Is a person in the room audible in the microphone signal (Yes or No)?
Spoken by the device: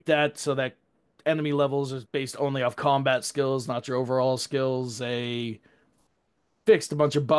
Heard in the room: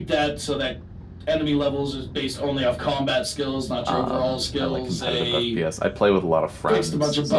Yes